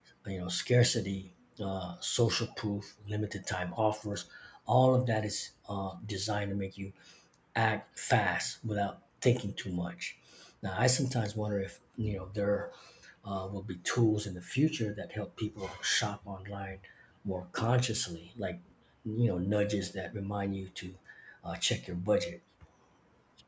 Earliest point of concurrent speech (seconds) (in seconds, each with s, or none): none